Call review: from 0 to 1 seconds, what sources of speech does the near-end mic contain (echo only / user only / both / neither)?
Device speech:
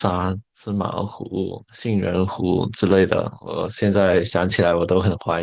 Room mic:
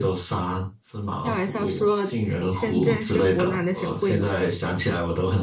echo only